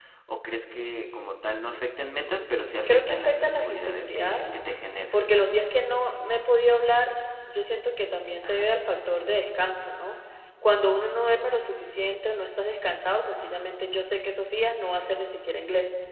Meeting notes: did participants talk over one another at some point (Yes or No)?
Yes